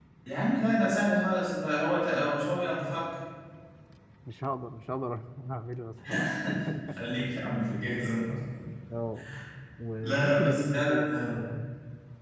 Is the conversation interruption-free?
No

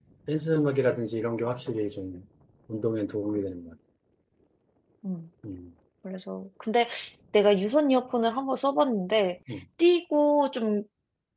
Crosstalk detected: No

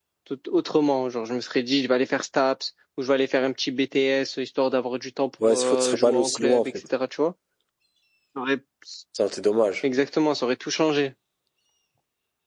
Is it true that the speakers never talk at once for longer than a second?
No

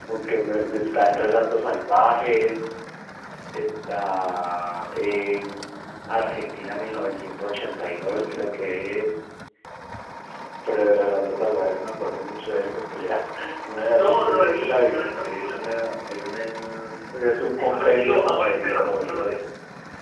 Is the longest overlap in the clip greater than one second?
Yes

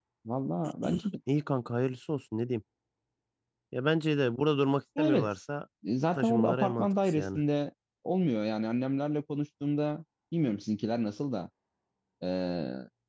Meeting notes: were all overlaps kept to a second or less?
No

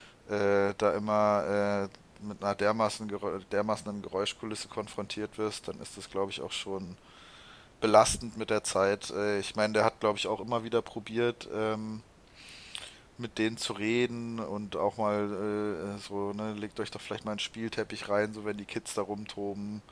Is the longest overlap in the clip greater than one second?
No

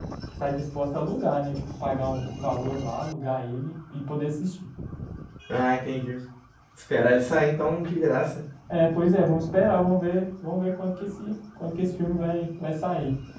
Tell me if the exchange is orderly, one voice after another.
Yes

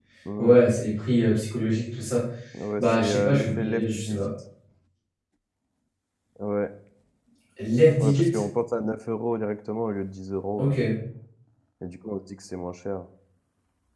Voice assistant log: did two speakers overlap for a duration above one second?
Yes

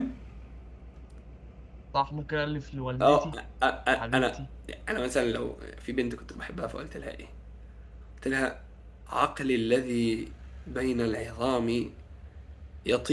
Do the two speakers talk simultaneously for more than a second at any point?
No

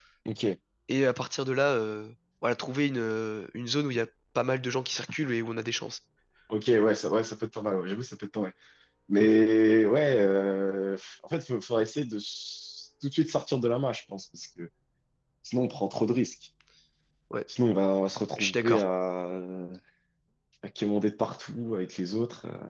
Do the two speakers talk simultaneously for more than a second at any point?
No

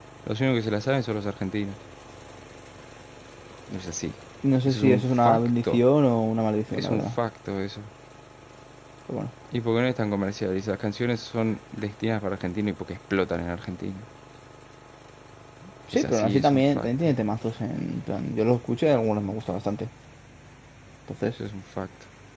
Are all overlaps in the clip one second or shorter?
No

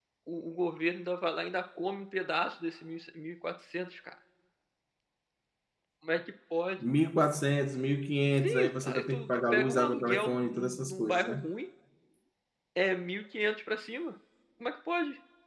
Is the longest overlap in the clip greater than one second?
Yes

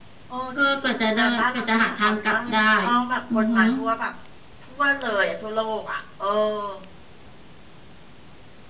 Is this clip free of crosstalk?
No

